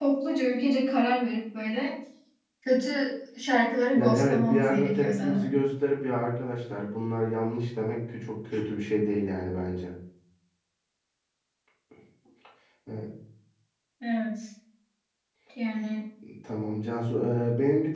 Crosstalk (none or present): present